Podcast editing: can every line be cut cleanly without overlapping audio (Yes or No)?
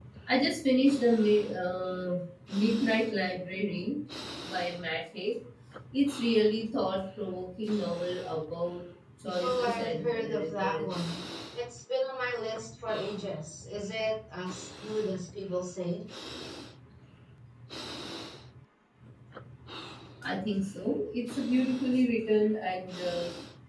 No